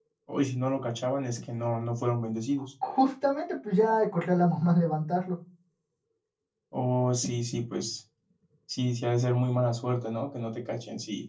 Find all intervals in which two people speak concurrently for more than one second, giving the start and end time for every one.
none

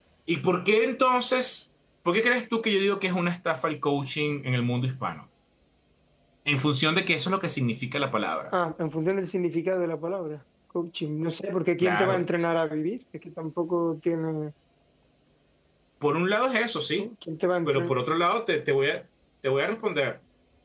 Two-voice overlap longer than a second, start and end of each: none

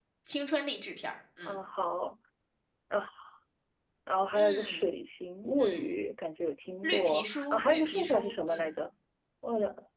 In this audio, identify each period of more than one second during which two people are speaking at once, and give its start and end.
6.8-8.7

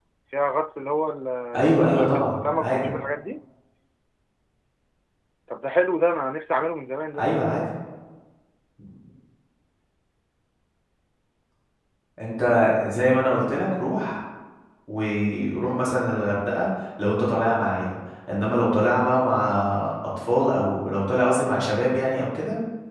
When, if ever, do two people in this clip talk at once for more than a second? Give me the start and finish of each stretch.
1.5-2.9

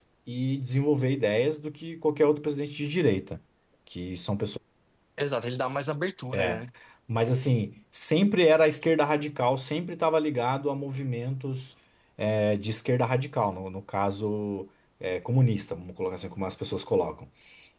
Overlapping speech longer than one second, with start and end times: none

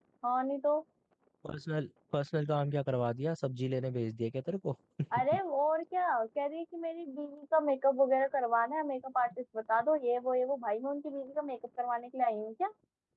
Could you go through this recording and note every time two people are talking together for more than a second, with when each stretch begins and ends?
none

